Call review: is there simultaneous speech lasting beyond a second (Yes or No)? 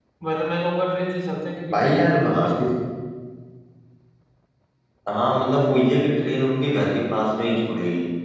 No